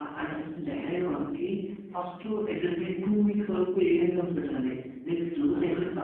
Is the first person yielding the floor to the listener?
No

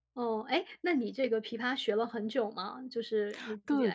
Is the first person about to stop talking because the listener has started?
Yes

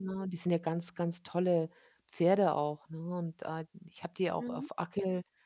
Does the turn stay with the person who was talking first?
Yes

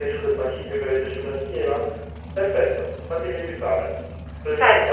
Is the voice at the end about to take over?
Yes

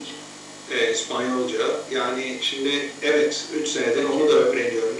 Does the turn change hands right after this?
No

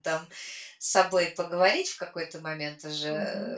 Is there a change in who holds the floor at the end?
Yes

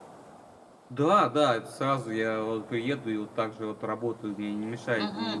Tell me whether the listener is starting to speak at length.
Yes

